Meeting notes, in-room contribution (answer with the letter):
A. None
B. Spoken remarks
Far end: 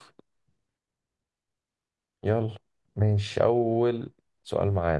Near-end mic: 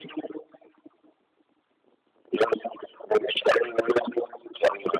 A